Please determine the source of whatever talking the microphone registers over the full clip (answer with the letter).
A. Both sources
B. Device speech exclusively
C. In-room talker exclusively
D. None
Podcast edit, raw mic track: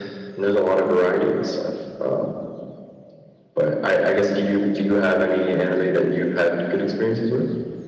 B